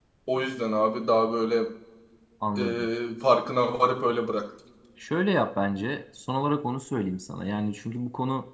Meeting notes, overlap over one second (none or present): none